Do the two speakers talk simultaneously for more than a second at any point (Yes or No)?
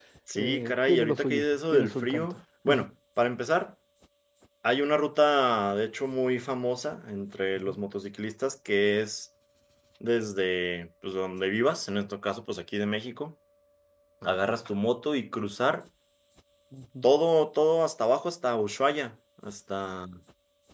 Yes